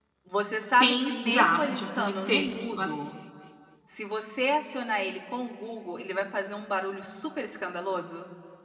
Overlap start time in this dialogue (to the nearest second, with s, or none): 1 s